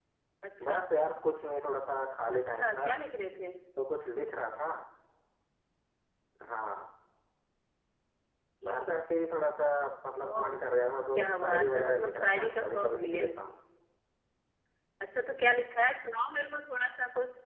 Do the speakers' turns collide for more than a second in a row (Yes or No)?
Yes